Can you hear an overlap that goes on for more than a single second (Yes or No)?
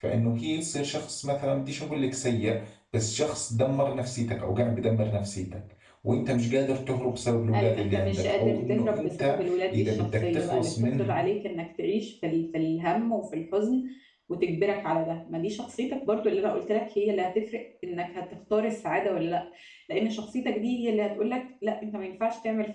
Yes